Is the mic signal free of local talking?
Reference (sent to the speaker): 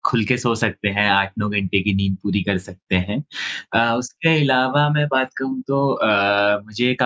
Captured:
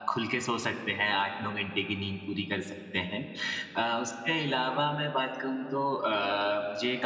Yes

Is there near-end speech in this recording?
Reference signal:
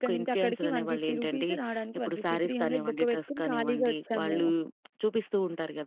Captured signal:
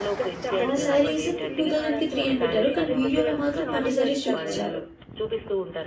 Yes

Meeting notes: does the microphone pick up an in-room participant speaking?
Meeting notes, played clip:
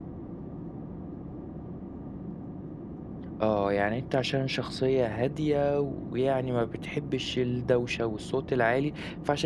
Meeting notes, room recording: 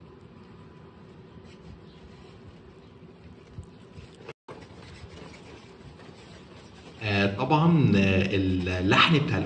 Yes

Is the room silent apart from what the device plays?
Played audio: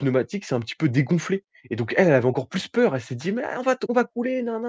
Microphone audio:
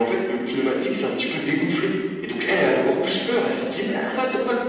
Yes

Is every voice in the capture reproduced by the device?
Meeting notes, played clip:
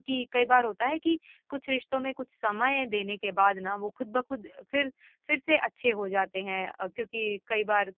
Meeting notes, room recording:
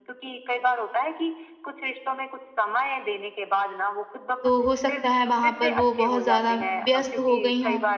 No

